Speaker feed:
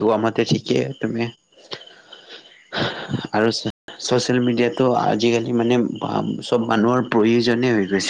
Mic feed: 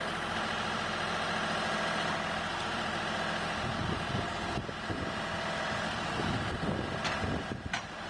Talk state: neither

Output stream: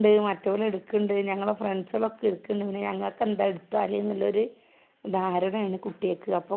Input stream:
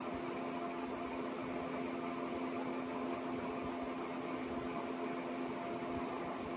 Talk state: neither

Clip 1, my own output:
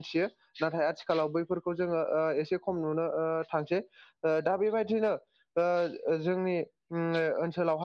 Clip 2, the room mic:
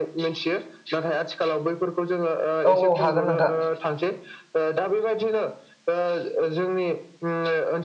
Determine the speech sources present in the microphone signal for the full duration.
both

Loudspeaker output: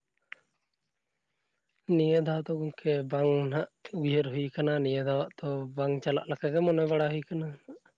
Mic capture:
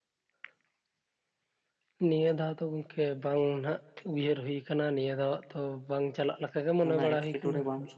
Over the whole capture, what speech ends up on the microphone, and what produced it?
both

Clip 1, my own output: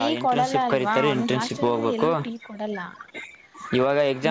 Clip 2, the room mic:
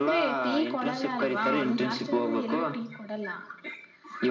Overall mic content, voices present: echo only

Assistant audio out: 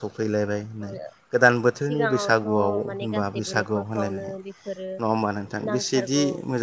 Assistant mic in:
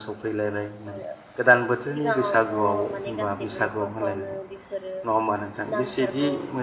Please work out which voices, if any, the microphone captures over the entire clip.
echo only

